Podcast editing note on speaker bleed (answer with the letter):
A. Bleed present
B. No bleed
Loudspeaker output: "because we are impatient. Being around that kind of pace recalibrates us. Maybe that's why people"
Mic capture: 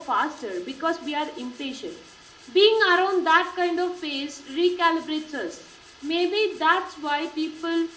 A